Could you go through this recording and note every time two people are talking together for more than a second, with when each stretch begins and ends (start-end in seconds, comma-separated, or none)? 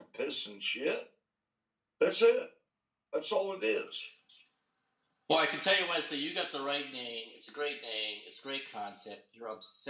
none